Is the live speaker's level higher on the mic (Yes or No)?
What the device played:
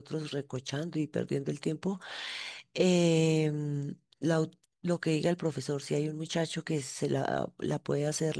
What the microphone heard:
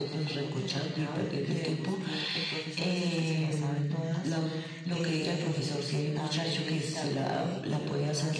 No